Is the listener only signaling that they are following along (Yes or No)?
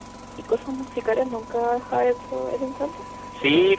No